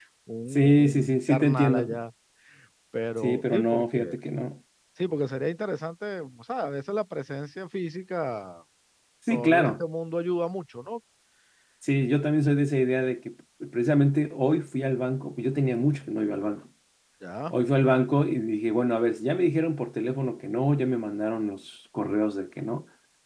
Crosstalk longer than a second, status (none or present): present